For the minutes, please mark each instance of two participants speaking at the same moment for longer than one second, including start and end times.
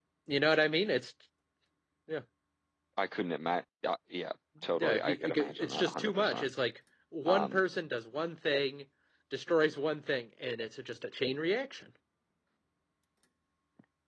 4.8-6.5

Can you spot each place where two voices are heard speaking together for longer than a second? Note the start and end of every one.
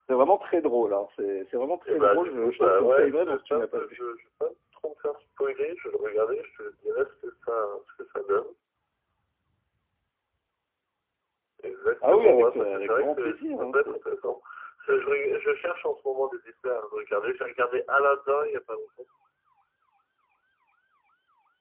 1.9-3.9, 12.0-14.0

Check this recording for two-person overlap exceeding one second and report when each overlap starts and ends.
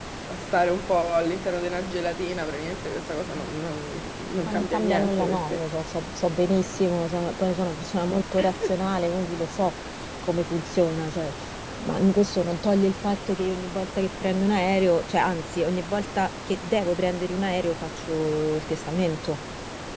4.5-5.7

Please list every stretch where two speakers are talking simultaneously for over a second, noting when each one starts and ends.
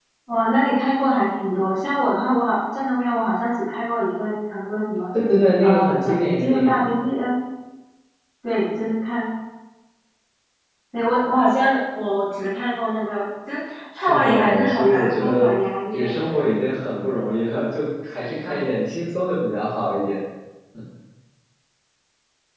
5.6-6.9, 13.9-15.4

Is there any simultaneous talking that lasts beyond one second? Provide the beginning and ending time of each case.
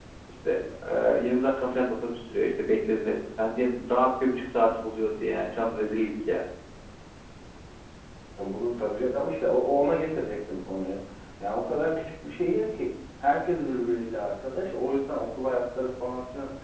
none

